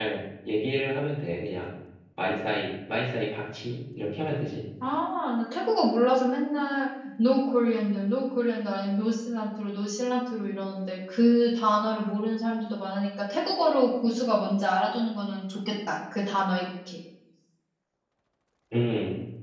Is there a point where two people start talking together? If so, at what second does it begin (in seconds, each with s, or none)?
none